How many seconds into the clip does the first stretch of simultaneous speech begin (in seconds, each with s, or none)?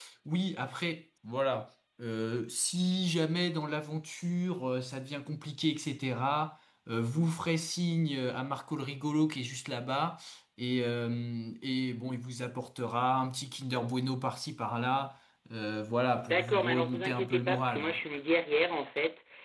16.2 s